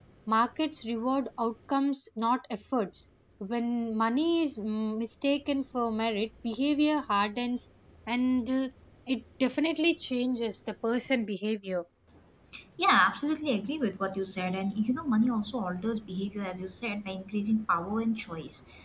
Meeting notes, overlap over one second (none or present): none